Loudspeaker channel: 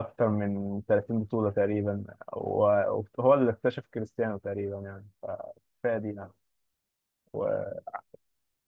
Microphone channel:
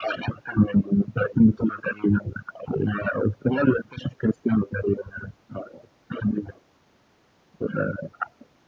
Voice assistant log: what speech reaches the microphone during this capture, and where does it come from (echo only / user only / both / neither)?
echo only